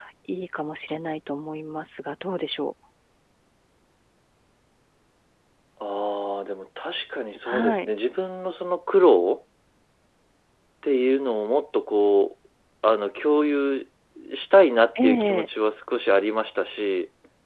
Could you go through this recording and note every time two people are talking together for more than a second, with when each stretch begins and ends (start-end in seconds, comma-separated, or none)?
none